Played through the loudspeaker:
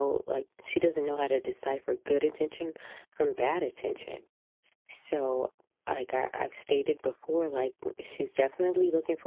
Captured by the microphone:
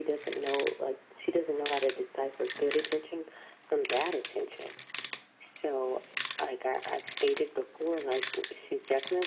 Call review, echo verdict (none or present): present